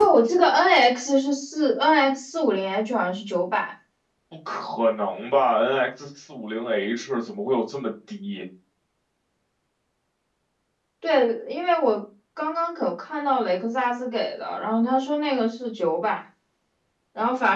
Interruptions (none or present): none